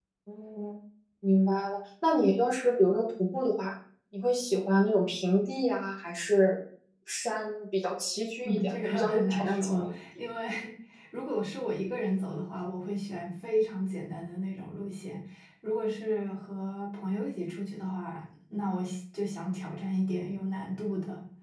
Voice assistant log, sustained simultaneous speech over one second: present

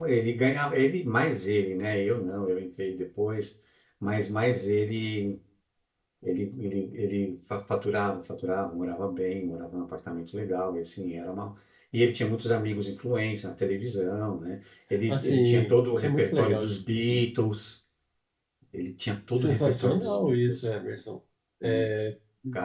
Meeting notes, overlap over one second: present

